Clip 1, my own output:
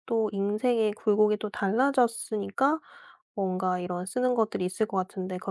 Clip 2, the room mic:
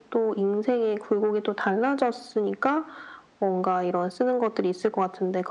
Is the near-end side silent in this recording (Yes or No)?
Yes